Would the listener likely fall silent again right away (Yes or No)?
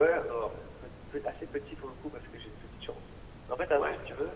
Yes